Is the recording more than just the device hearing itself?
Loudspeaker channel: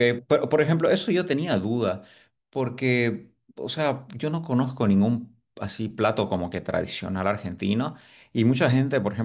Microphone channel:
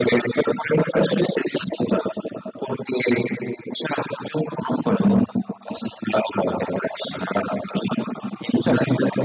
No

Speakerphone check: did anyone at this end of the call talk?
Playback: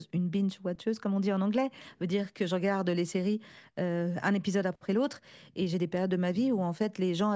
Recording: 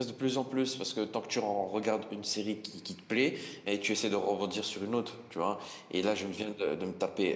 Yes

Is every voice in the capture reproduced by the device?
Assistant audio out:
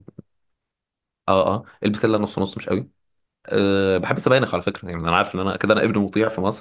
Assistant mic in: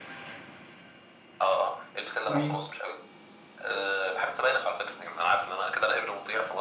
No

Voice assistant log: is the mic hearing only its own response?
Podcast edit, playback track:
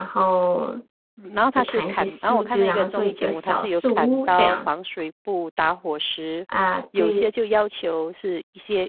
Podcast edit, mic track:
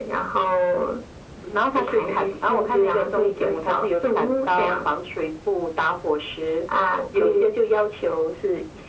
Yes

